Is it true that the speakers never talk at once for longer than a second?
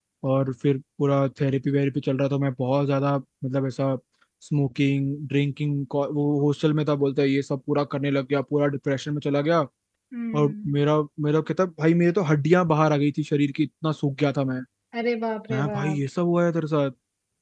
Yes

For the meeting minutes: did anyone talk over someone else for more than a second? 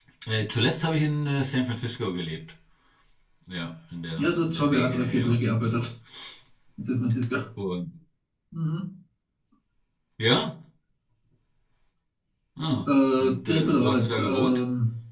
Yes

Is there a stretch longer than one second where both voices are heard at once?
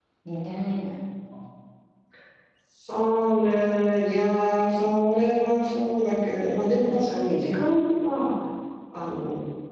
No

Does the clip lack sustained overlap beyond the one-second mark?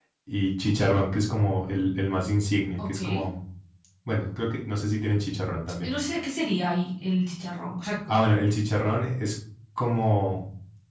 Yes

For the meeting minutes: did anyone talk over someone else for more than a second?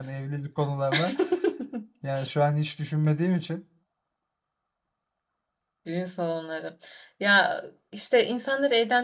No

